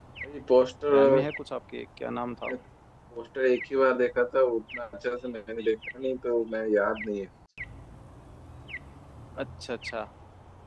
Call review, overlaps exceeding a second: none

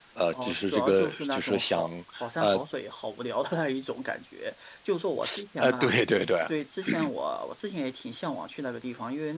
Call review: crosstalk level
present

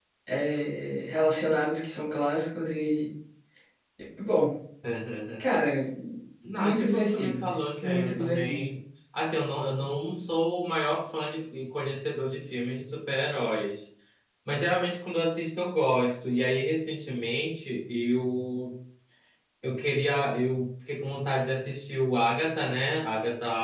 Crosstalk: present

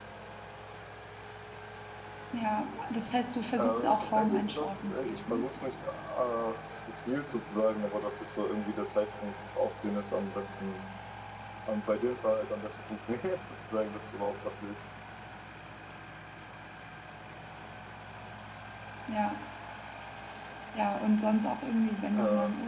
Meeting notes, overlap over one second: present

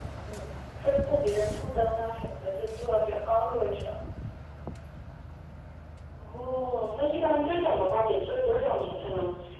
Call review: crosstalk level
none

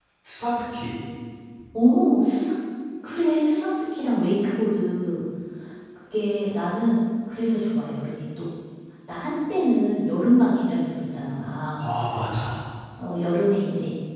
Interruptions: none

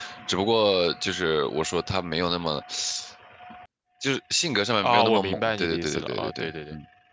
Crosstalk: present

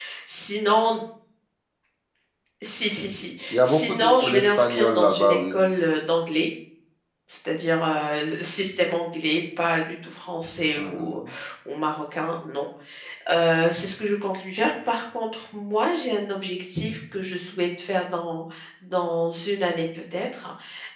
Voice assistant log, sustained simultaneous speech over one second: present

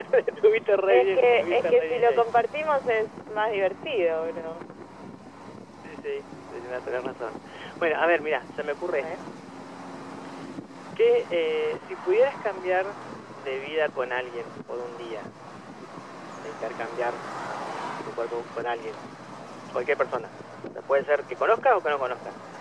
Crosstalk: present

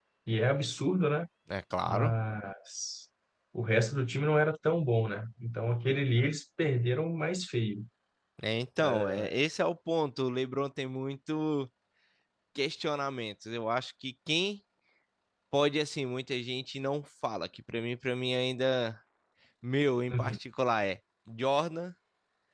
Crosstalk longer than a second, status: none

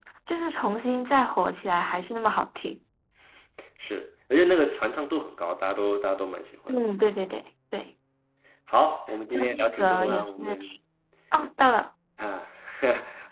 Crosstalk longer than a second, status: present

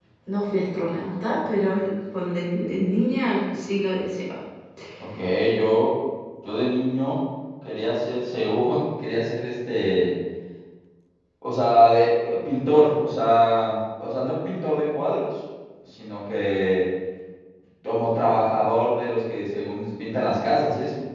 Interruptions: none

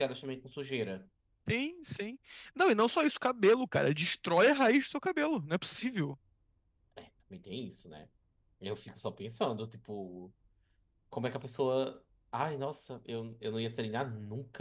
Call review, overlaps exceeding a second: none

